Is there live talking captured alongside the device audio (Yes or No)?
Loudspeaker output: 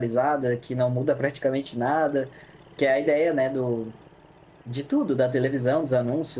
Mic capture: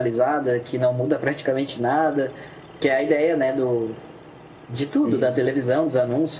Yes